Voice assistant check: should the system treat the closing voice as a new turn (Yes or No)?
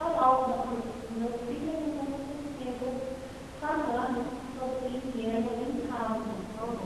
Yes